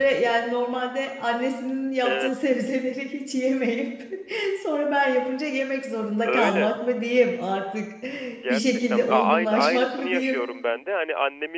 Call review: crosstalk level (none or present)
present